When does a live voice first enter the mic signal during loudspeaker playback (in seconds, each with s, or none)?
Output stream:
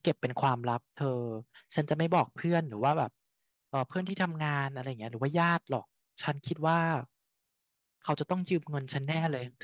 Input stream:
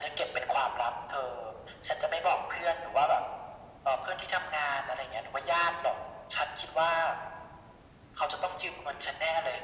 none